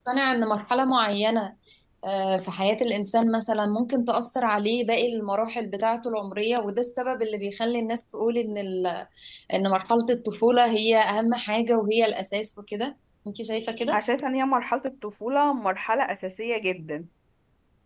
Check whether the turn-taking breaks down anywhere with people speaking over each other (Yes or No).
No